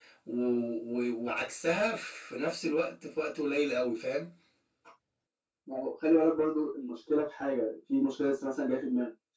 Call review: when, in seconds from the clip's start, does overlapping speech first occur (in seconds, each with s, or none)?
none